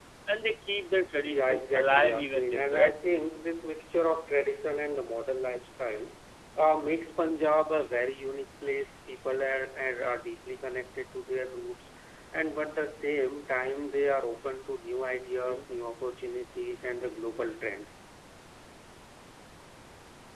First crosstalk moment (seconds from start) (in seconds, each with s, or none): 1.2 s